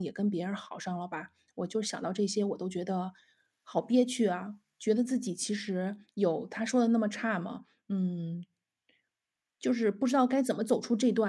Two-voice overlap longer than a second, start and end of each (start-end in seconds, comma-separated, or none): none